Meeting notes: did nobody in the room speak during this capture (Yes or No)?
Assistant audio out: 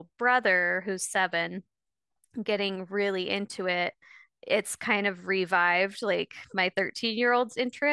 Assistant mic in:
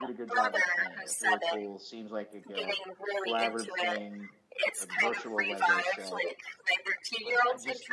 No